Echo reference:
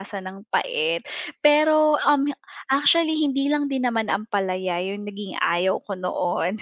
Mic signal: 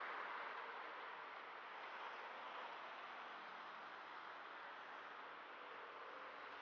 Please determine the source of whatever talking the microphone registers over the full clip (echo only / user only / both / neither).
neither